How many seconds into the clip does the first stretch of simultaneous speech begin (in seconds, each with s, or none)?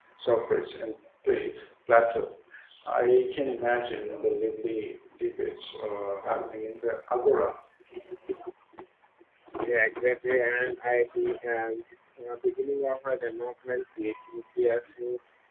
none